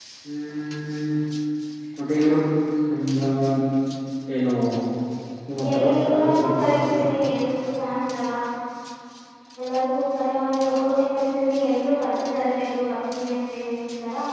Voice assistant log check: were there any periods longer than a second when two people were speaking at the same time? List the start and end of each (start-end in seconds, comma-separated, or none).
5.7-7.0